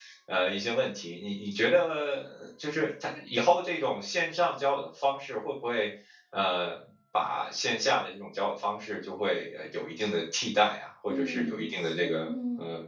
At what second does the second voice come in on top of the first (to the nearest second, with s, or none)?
11 s